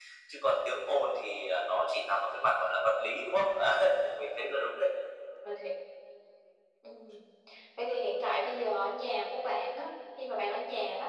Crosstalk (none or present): none